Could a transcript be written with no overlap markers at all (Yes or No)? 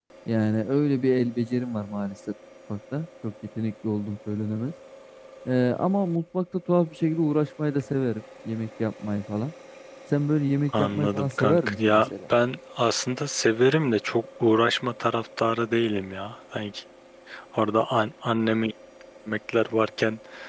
No